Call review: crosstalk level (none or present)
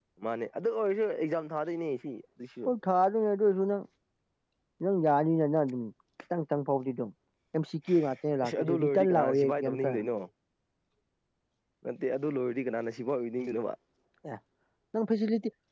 present